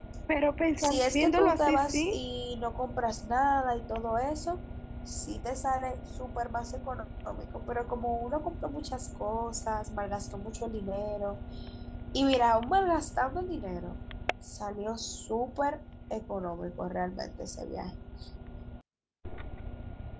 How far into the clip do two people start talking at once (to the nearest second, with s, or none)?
1 s